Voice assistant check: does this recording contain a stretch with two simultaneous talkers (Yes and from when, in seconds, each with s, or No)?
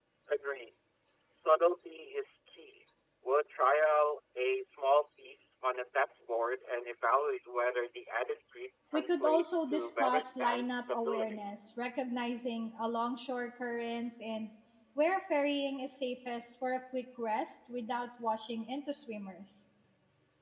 Yes, from 8.9 s